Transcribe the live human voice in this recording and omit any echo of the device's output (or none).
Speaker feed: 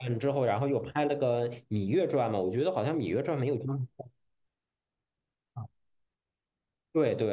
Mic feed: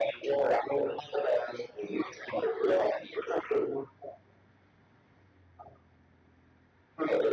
none